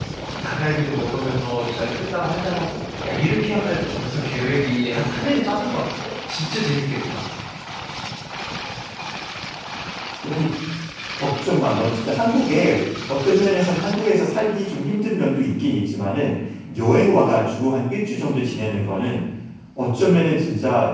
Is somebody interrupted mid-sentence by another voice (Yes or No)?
No